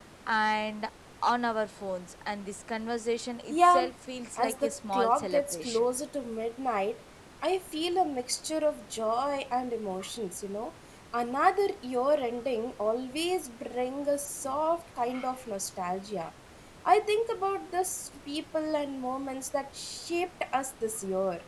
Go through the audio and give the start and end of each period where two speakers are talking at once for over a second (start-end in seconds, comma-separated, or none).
4.4-5.9